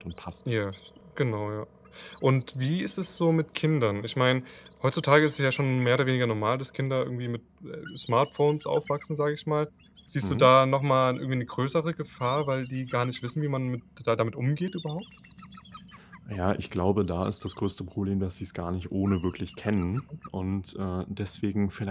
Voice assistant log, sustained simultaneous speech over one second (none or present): none